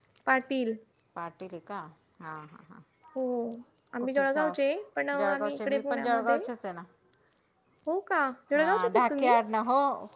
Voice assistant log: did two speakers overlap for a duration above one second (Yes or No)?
Yes